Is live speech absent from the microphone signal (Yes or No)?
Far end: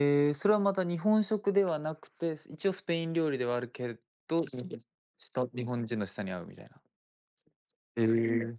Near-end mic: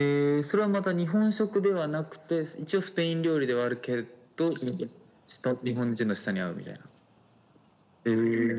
Yes